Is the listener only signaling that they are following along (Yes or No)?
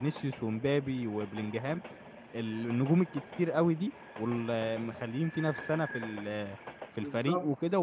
Yes